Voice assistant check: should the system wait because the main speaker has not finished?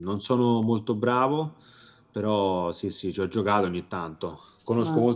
Yes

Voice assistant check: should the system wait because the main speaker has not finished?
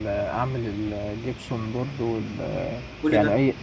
Yes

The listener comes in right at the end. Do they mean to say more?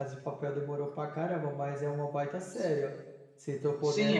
Yes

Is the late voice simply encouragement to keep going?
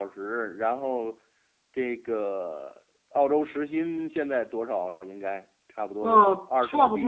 No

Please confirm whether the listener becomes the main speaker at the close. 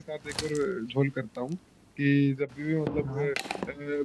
No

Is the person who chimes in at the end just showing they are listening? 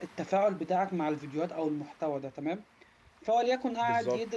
Yes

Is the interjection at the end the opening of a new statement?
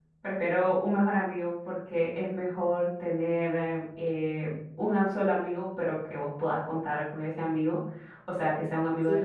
No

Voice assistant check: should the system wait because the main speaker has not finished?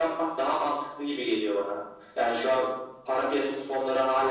No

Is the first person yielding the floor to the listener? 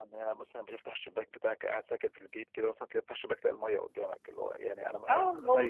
Yes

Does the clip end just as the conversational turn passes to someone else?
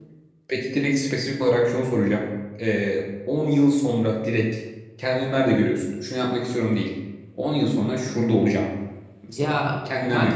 Yes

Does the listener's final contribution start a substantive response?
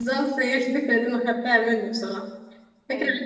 No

